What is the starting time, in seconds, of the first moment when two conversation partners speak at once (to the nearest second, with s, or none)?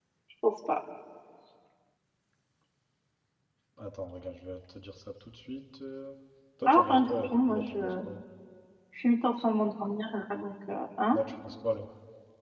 7 s